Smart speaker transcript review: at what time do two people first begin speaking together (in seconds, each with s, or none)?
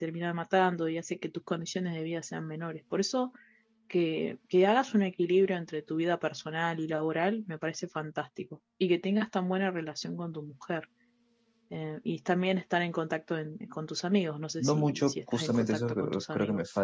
14.6 s